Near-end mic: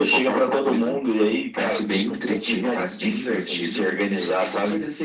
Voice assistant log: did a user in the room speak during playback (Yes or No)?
No